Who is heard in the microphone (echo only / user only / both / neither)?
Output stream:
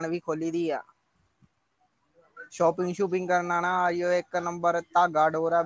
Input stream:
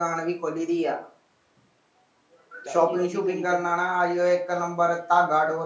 both